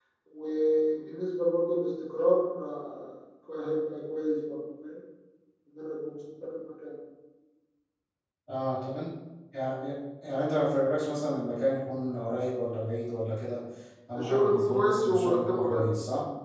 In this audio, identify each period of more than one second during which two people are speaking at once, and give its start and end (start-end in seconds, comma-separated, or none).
14.1-15.9